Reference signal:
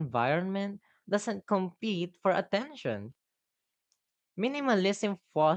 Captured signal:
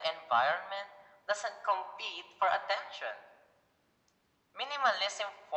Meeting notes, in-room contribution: none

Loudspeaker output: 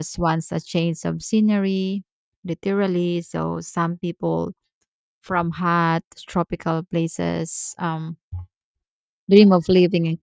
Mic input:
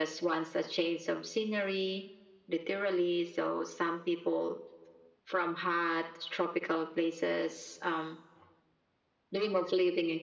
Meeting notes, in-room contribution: none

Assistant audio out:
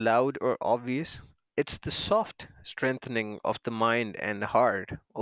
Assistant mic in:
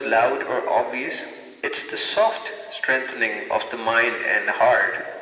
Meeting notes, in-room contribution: none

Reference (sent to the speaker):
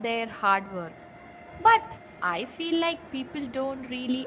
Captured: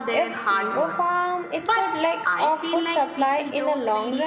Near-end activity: present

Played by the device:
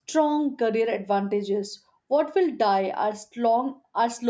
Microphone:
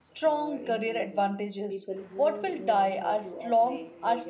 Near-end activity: present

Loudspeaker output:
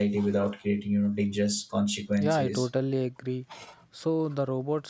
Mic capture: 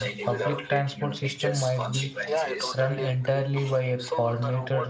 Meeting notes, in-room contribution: present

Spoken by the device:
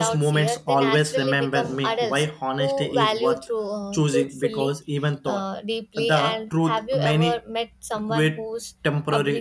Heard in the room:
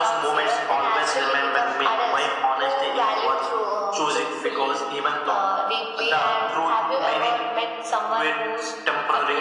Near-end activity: none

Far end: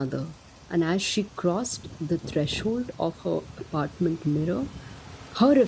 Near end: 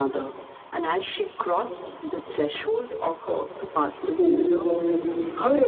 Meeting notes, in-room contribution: present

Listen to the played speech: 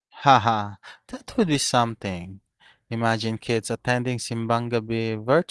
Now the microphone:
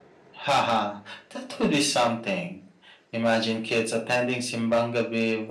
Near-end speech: none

